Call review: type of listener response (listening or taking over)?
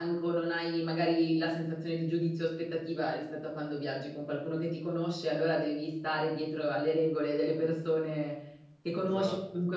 listening